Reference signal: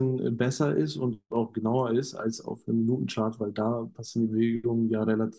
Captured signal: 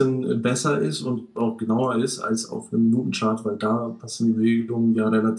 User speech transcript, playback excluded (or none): none